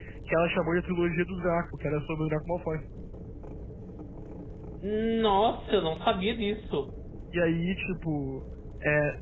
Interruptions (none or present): none